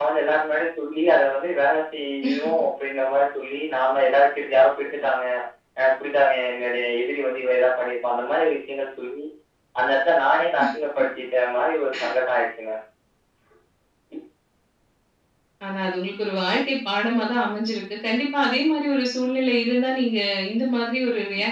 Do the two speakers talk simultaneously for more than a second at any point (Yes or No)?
No